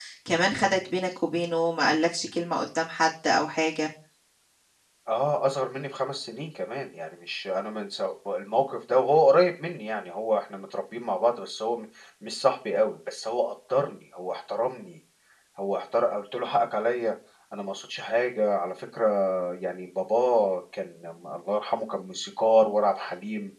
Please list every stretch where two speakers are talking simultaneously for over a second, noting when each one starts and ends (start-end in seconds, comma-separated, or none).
none